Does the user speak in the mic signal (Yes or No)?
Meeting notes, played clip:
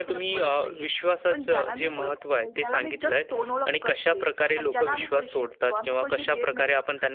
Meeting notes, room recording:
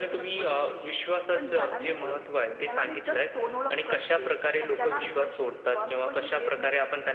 No